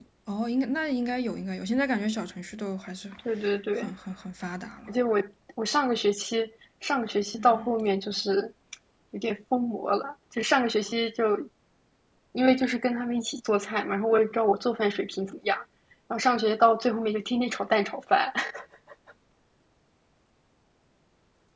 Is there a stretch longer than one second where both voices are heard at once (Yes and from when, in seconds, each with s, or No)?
No